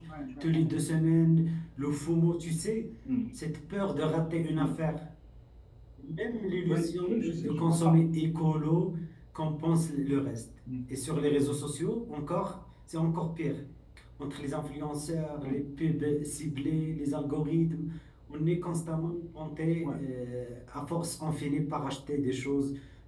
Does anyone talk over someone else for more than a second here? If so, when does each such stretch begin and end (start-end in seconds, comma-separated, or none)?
6.7-8.0